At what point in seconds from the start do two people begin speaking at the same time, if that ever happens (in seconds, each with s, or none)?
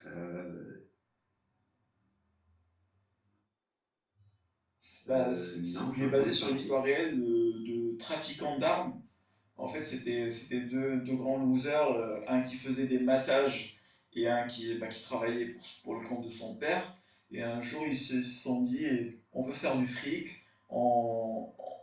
5.1 s